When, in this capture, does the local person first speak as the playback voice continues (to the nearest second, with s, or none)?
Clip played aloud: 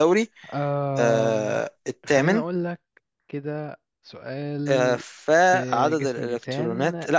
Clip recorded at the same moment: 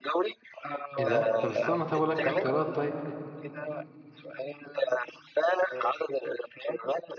1 s